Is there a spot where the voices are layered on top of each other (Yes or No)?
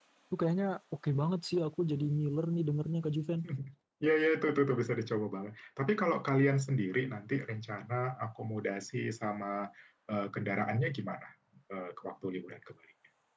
No